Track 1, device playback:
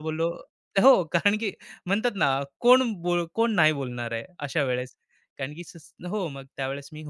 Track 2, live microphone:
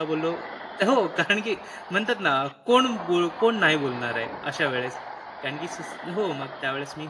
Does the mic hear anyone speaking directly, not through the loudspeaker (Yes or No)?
No